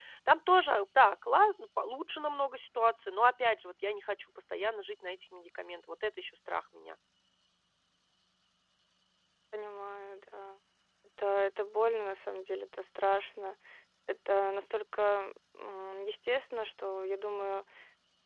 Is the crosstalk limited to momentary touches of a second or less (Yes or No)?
Yes